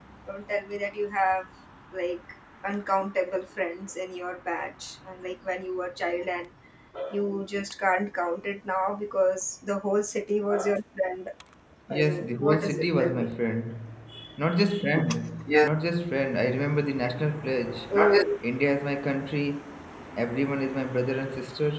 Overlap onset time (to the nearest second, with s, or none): 12 s